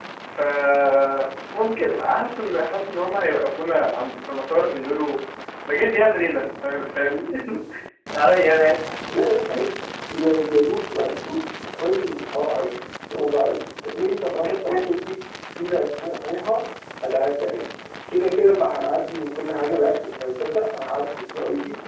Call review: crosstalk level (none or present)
none